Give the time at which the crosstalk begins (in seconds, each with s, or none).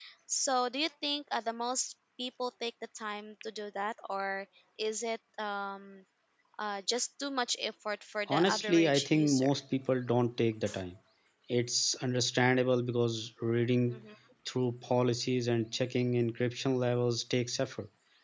8.3 s